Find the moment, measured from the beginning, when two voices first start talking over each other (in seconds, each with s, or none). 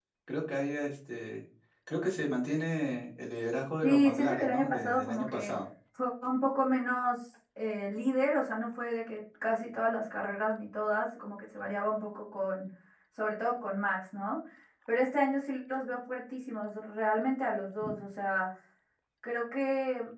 3.8 s